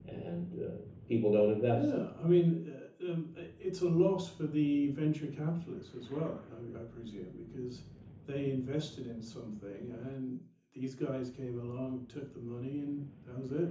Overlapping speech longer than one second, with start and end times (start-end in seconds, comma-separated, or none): none